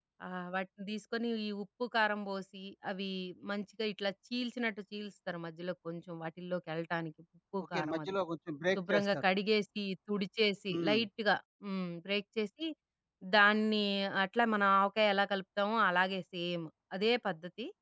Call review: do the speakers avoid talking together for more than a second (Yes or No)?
Yes